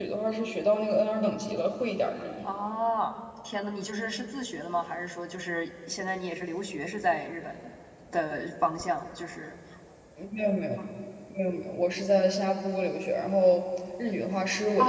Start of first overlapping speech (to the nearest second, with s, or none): none